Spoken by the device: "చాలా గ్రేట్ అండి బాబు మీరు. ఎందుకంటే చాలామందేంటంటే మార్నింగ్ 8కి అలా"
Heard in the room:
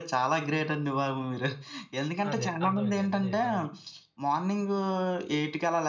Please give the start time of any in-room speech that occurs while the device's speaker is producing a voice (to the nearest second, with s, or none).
2 s